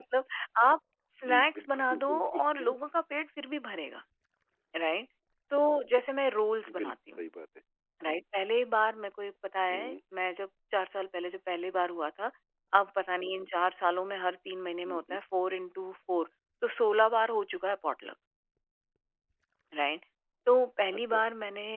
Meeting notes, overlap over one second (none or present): present